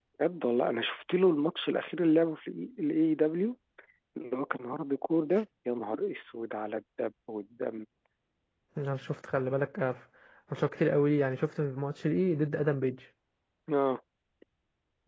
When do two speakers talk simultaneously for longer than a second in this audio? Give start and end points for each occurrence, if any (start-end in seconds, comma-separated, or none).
none